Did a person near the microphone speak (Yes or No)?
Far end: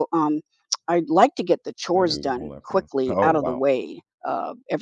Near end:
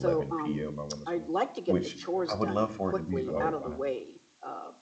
Yes